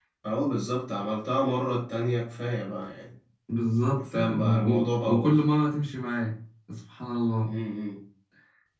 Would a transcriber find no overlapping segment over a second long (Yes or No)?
No